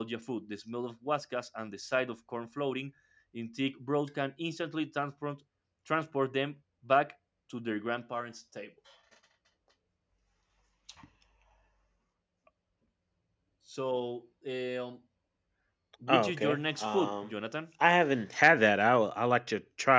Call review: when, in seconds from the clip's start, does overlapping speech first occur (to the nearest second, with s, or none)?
16 s